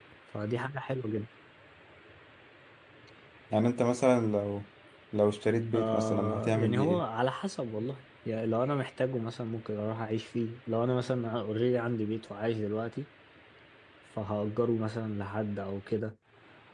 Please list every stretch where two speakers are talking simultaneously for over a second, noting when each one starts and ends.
5.7-7.0

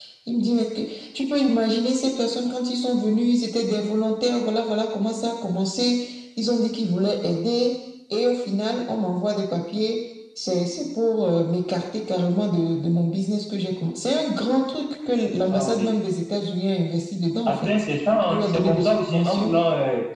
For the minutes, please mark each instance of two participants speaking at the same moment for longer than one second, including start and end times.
18.2-19.5

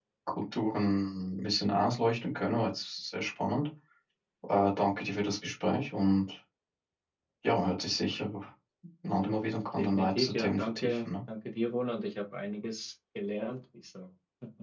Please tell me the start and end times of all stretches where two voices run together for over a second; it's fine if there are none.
9.8-11.1

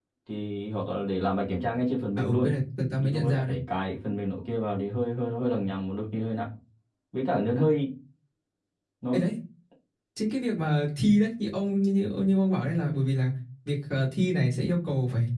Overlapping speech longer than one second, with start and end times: none

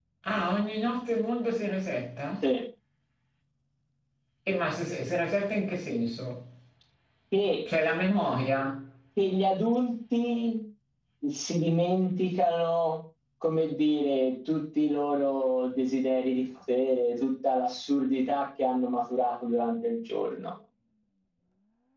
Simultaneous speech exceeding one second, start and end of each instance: none

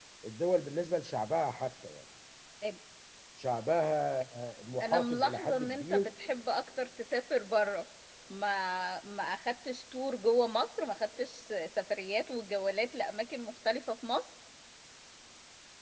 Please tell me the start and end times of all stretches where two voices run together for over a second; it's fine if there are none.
4.8-6.0

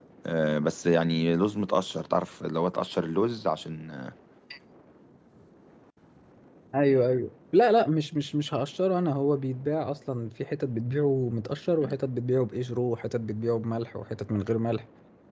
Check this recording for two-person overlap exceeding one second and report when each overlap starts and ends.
none

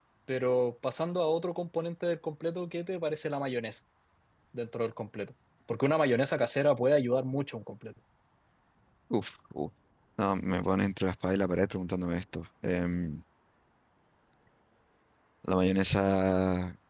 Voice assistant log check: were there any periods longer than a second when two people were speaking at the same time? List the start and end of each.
none

